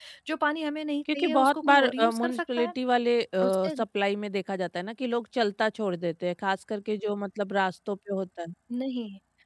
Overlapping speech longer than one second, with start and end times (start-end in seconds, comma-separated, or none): 1.1-2.7